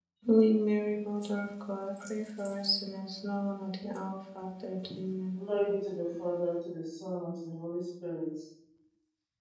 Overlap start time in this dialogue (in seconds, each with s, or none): none